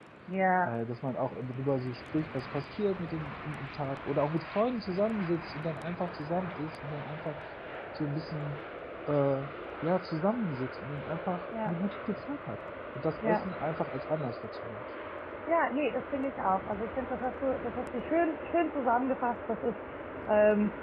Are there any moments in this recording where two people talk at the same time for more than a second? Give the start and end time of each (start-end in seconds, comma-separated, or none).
none